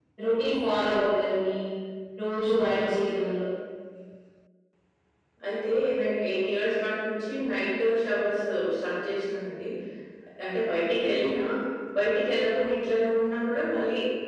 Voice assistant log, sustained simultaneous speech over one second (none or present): none